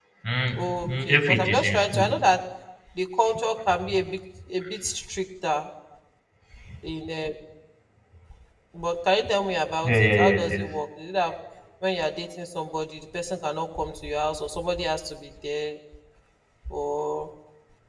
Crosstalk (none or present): present